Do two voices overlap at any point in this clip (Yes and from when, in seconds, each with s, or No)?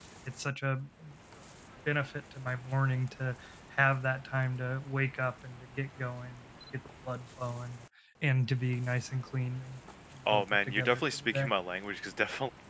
Yes, from 10.3 s